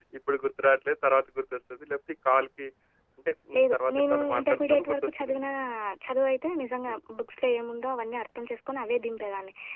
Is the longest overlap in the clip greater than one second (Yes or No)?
Yes